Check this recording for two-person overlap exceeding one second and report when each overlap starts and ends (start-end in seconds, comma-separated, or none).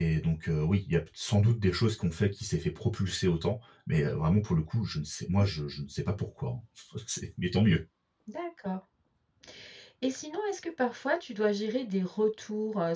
none